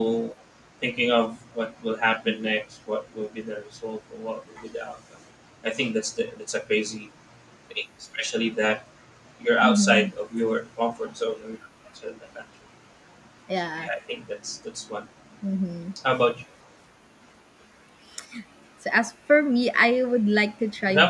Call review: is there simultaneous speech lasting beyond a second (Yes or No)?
No